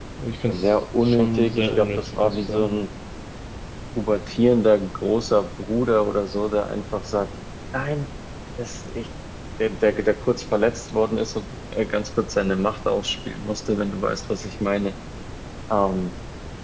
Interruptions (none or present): present